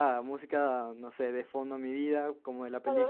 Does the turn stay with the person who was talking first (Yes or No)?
No